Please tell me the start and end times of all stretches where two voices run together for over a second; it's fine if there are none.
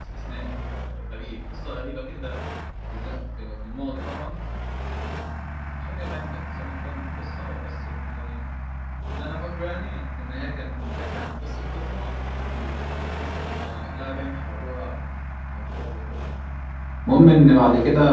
none

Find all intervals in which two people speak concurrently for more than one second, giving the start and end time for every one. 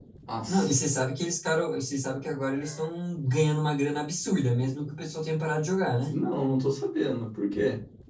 none

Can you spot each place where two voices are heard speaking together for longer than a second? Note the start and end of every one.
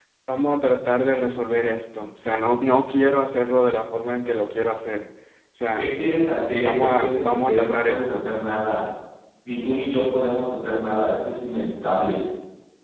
6.6-8.3

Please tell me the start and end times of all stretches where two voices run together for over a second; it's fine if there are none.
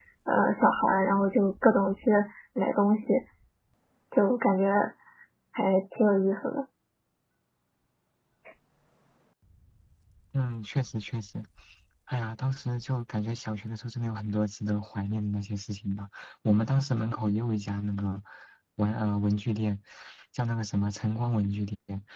none

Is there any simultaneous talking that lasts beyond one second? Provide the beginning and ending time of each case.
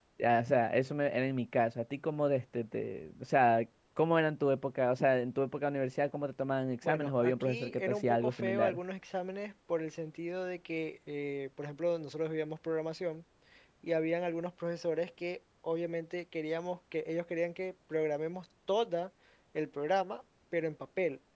6.8-8.8

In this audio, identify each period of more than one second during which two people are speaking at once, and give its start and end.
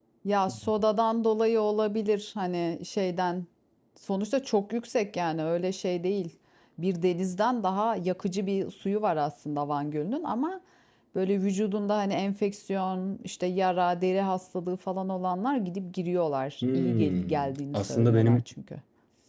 16.6-18.4

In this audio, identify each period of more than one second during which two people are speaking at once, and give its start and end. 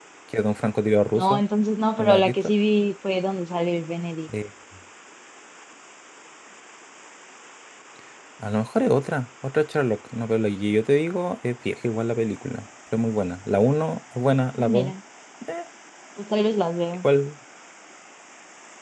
none

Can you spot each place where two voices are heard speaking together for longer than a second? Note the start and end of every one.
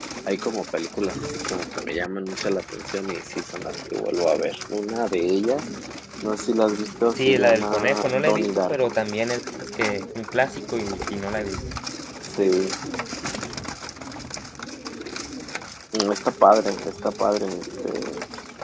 7.2-8.9

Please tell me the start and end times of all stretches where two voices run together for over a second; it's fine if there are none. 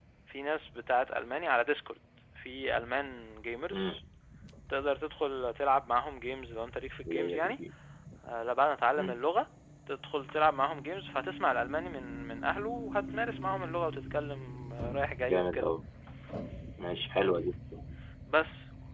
none

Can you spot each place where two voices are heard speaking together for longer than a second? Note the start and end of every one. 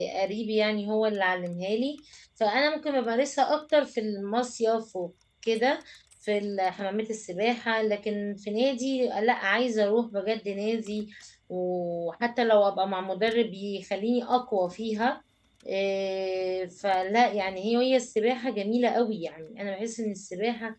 none

